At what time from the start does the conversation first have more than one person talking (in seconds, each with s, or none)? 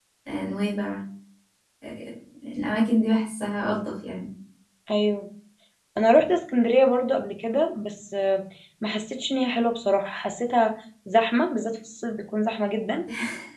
none